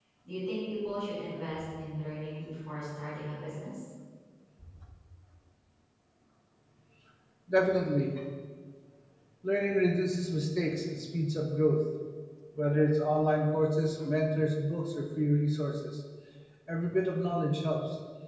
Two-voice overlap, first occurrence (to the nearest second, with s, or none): none